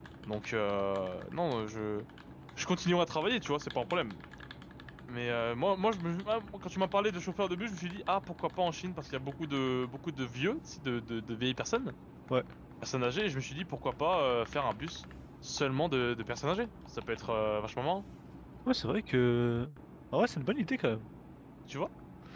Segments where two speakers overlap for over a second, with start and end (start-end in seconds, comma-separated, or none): none